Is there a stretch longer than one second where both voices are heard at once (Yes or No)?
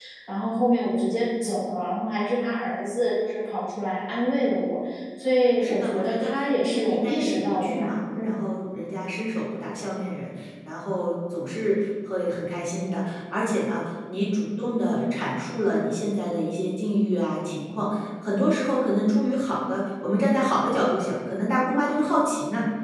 Yes